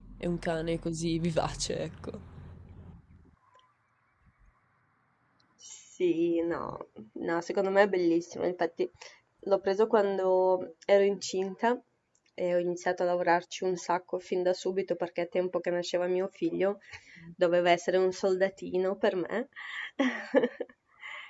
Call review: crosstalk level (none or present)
none